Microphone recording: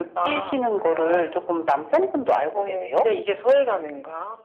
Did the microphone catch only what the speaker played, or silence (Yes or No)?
Yes